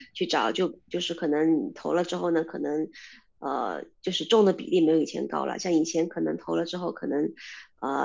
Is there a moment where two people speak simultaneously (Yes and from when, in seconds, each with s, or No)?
No